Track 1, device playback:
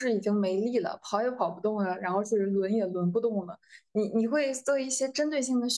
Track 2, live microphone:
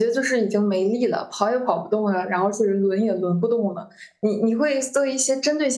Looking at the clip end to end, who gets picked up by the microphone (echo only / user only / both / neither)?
echo only